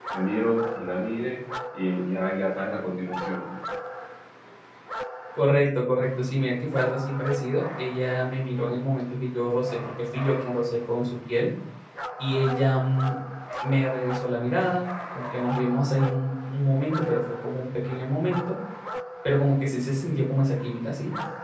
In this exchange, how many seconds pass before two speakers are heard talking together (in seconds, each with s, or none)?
none